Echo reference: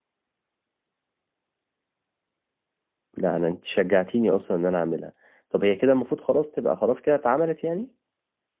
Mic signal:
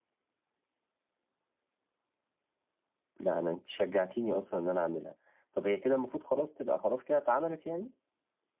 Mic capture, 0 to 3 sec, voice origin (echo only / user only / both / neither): neither